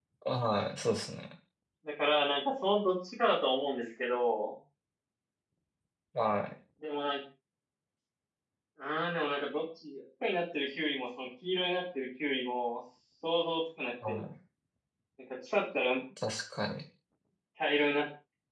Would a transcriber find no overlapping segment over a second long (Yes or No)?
Yes